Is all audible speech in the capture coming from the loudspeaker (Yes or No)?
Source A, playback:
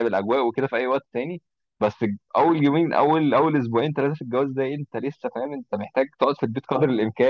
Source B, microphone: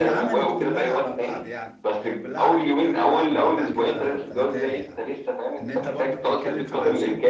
No